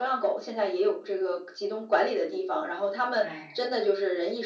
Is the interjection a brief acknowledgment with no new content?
Yes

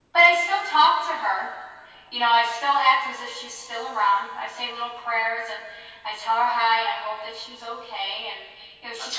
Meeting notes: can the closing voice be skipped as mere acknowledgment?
Yes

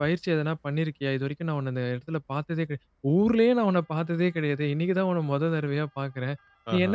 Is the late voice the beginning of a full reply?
No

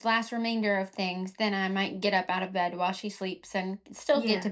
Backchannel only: Yes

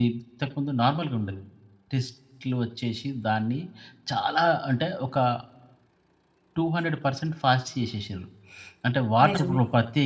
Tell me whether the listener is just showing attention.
Yes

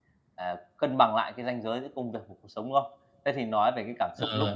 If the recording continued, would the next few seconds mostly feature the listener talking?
No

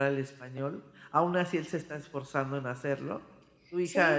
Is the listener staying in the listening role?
No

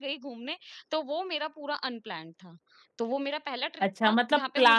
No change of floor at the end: No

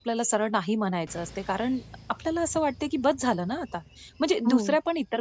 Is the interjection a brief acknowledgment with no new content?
Yes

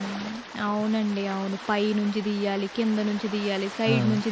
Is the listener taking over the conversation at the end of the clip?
No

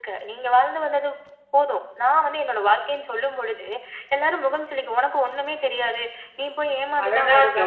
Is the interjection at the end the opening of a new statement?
Yes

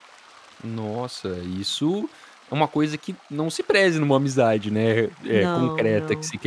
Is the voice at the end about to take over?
No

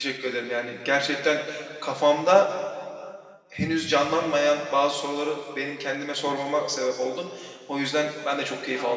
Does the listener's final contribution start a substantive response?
Yes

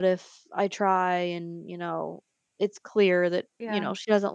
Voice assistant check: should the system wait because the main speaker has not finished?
Yes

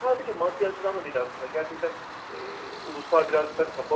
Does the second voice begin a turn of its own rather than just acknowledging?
No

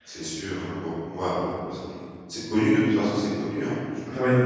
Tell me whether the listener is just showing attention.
Yes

